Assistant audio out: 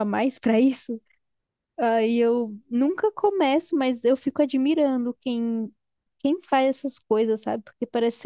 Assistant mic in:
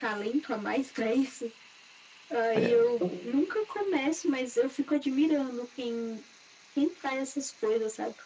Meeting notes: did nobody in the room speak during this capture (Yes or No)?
No